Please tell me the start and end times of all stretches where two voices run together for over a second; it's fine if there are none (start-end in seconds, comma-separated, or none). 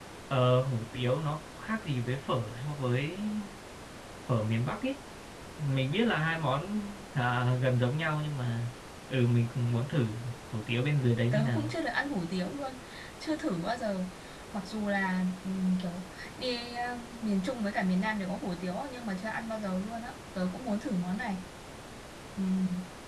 none